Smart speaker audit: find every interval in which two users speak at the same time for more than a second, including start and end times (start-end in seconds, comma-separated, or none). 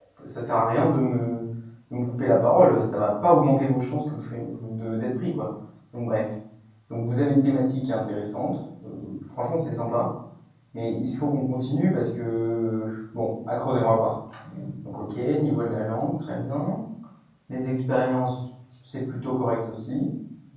none